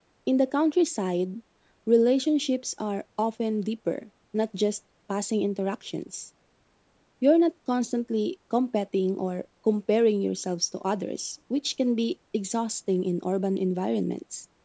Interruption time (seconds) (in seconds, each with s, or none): none